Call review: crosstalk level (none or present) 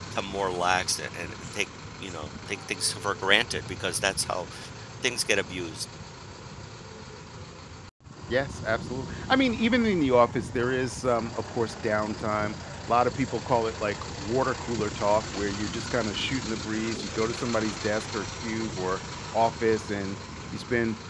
none